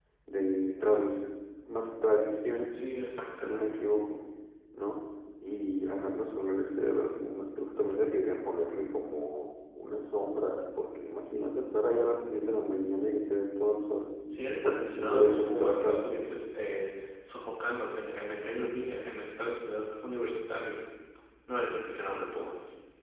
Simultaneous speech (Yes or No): Yes